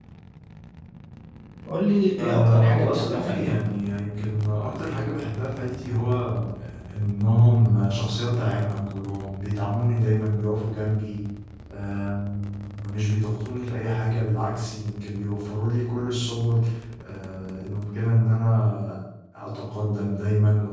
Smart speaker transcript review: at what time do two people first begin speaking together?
2.2 s

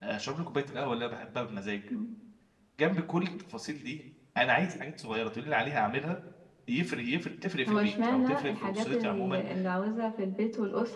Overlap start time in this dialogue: 7.7 s

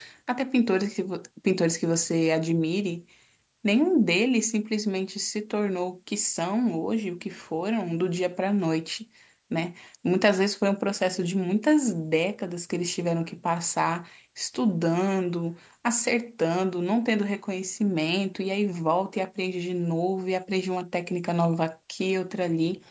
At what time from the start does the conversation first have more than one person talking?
none

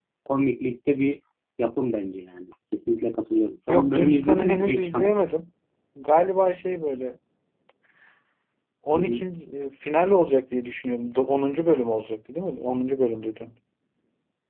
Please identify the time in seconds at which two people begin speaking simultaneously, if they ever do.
3.7 s

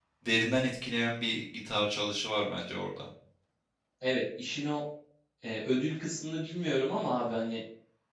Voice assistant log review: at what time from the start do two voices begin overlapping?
none

